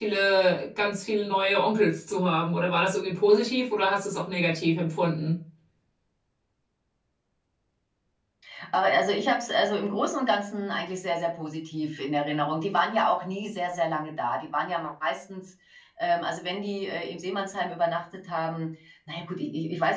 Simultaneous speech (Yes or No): No